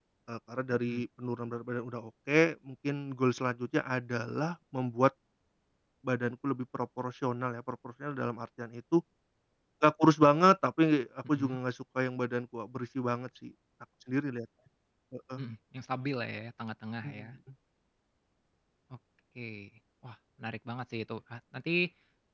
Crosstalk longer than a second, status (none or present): none